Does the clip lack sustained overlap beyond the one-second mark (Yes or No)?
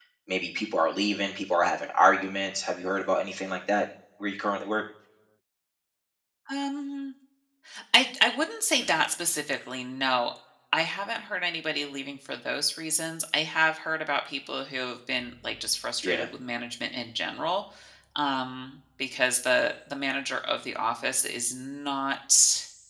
Yes